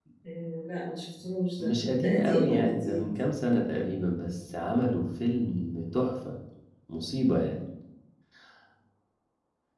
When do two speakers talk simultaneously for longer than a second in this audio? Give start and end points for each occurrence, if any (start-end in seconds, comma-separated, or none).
1.6-3.1